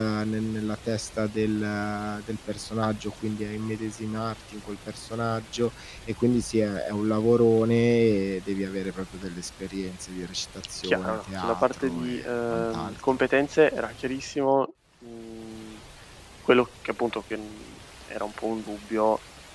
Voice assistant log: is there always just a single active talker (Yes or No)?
No